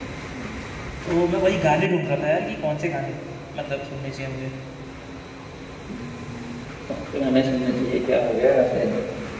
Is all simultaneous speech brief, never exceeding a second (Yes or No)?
Yes